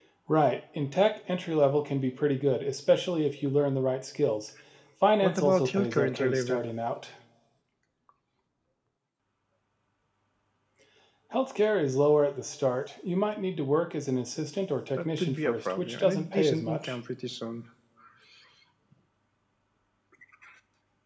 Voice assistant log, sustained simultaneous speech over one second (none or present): present